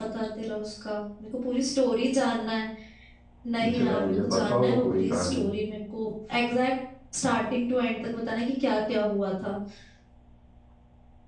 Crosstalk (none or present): present